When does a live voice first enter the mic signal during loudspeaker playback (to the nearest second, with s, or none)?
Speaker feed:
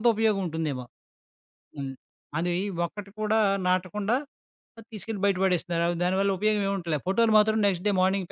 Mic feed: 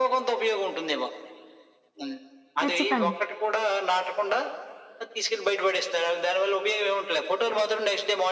3 s